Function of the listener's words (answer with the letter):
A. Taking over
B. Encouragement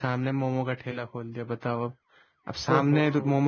B